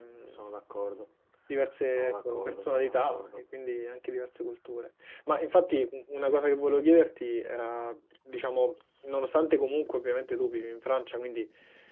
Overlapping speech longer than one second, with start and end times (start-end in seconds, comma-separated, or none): 2.0-3.4